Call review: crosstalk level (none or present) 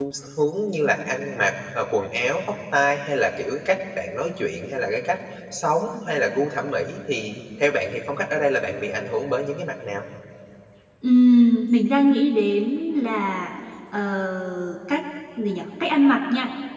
none